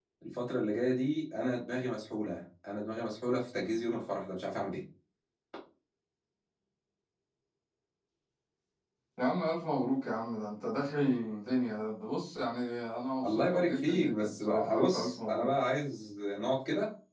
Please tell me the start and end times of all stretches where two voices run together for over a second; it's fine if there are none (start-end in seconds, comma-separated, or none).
13.2-15.5